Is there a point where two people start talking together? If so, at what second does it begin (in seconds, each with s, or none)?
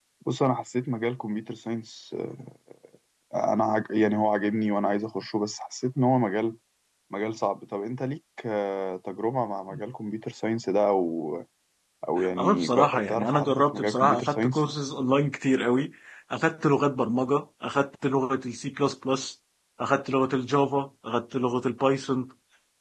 12.4 s